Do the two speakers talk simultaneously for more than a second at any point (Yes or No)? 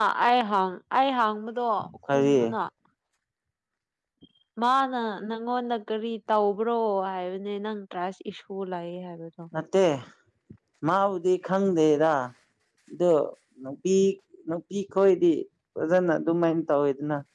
No